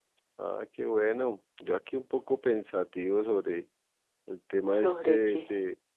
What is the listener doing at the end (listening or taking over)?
listening